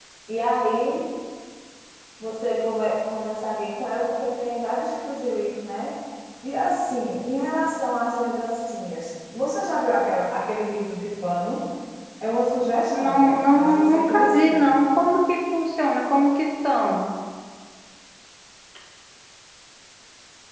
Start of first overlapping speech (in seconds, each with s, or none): 12.9 s